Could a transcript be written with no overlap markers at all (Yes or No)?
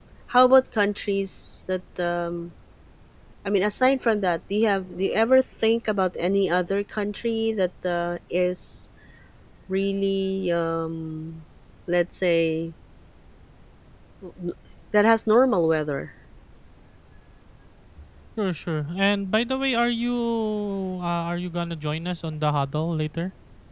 Yes